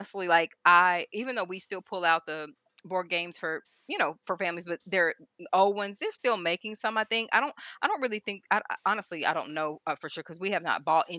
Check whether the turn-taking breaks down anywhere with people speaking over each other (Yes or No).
No